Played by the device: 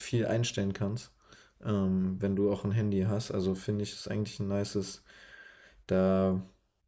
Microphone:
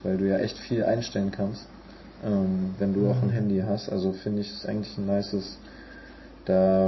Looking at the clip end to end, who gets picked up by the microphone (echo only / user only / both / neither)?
both